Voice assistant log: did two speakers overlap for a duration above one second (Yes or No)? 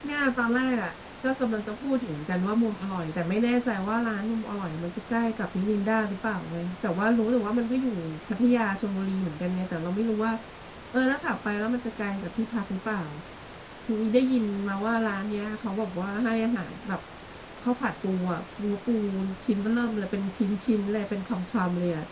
No